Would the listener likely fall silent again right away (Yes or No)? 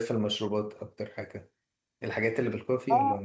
No